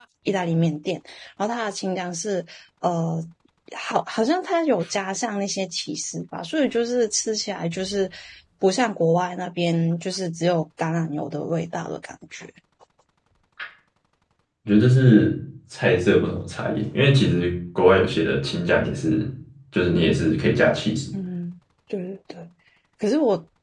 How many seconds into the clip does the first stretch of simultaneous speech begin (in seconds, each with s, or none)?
none